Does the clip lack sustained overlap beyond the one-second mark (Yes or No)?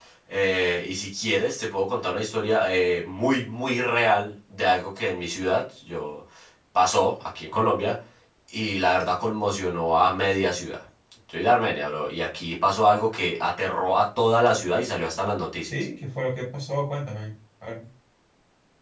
Yes